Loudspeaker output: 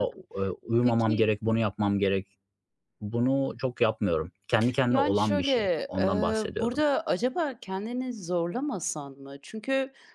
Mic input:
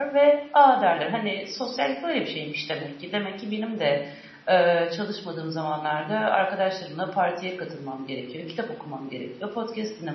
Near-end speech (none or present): present